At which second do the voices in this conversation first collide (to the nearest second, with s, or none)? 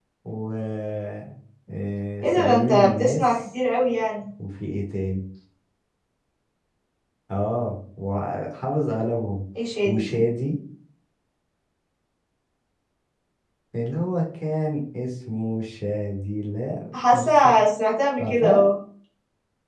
2 s